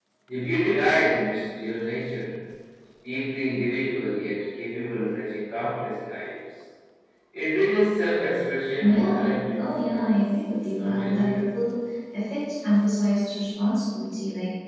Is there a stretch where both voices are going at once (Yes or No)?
Yes